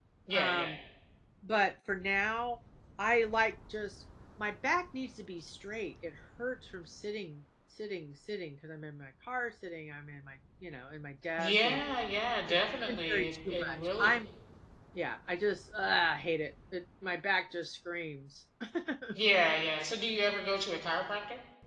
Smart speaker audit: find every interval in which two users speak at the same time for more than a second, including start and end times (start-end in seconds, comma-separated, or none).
12.9-14.1